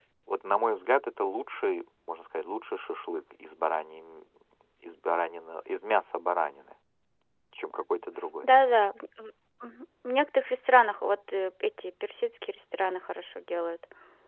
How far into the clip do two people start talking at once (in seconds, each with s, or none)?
none